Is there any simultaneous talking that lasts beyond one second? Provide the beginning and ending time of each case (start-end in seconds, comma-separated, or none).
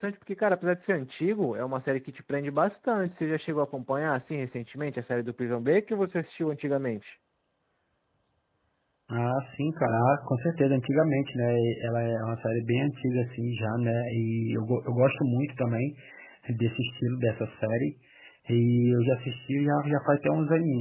none